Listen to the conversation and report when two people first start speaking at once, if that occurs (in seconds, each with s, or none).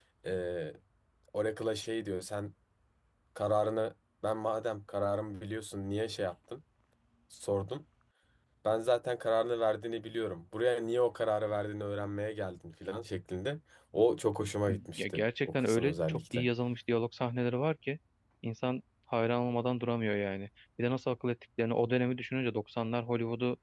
14.9 s